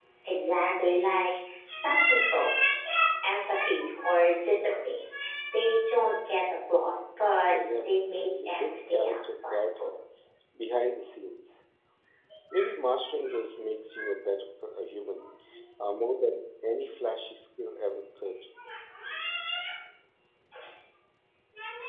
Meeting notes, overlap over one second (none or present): present